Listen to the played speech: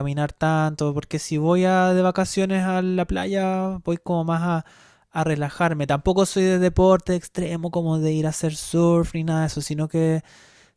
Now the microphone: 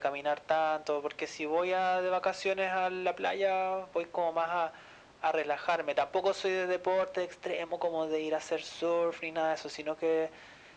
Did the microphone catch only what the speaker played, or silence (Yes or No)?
Yes